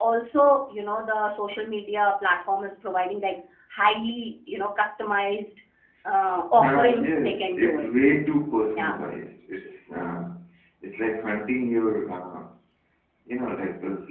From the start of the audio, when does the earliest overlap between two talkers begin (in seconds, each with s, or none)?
6.6 s